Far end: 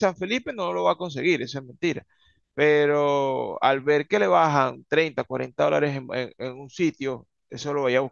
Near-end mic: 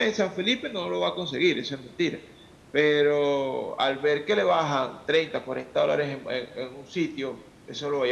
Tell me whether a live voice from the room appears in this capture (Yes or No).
No